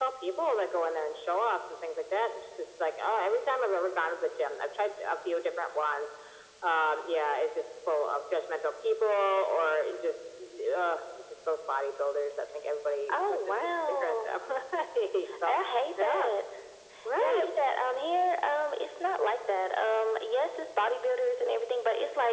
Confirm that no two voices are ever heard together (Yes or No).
No